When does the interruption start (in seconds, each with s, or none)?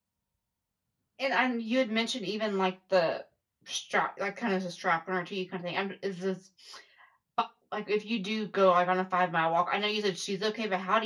none